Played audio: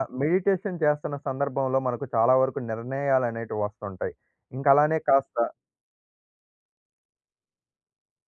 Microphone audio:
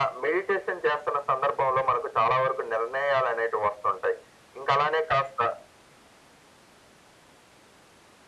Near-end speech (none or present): none